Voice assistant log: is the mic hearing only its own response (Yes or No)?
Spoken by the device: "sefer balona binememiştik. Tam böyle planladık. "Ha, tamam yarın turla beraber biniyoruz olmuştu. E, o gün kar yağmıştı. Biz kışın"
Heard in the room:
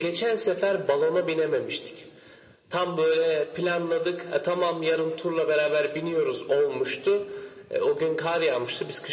Yes